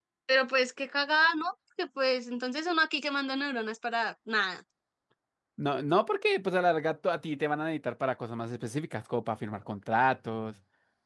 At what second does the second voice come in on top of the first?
none

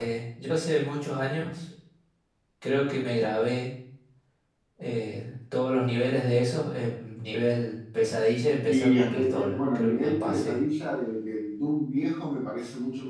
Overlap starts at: 8.7 s

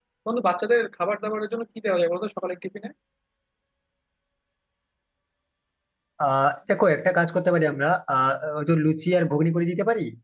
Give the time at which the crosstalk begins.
none

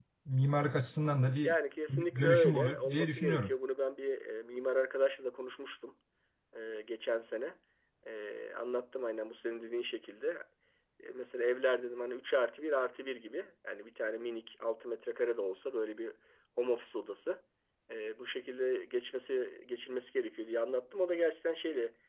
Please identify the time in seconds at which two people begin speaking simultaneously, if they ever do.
2.2 s

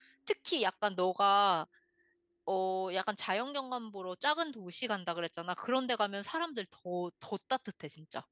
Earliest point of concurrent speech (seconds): none

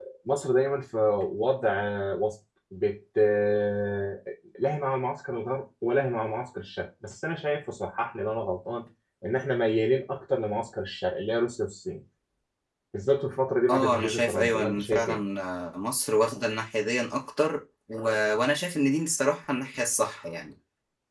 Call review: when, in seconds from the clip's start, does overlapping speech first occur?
13.7 s

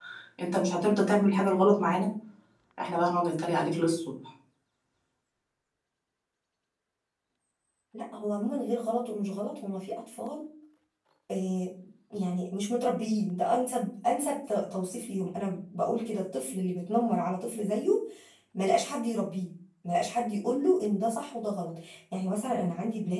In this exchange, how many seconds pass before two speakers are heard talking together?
none

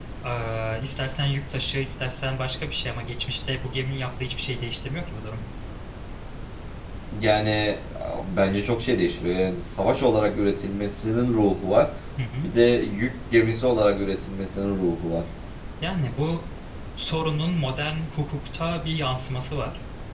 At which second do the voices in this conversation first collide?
none

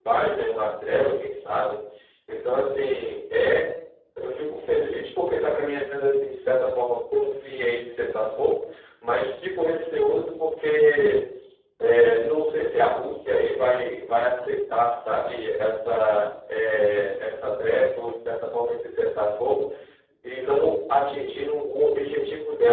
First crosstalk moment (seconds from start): none

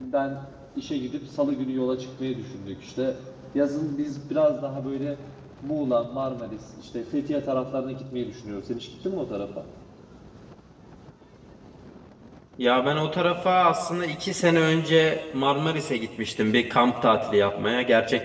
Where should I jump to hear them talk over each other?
none

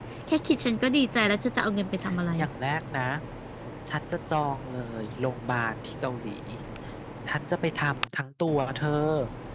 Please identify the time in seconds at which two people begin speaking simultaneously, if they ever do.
none

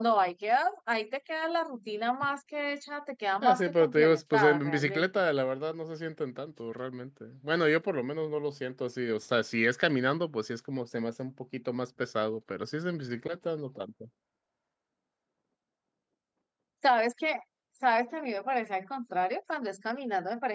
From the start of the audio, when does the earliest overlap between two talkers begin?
3.4 s

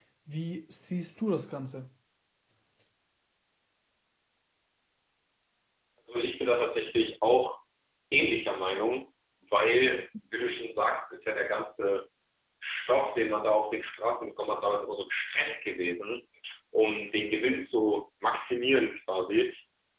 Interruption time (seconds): none

